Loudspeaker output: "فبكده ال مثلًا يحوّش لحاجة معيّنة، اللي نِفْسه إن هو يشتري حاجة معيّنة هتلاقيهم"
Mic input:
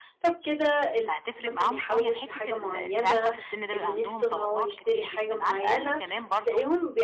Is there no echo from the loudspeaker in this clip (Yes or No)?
No